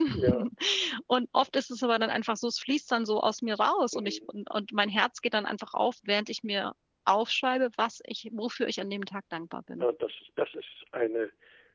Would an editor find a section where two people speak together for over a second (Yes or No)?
No